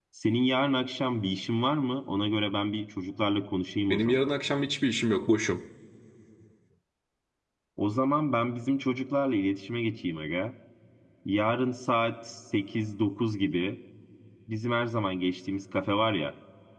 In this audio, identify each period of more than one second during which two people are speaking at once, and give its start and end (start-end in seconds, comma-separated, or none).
none